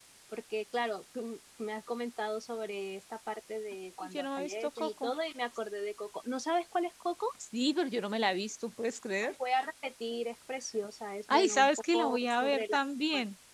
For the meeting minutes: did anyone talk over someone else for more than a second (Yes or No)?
Yes